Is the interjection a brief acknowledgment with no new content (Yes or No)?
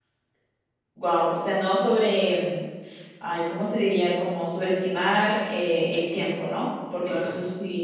Yes